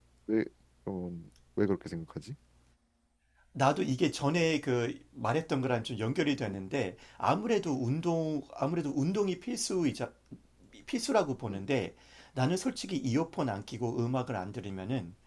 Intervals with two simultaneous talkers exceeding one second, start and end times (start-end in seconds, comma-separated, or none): none